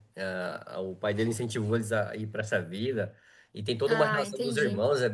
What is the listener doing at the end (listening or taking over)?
listening